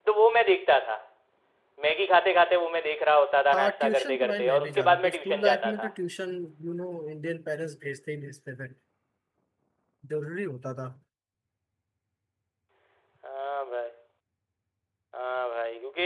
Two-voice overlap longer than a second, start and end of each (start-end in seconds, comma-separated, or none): 3.5-5.9